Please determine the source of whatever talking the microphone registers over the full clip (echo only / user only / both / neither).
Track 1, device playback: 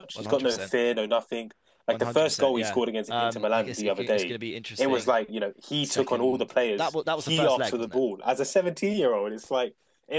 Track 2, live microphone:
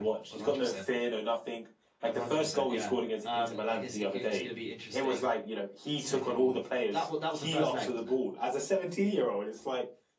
echo only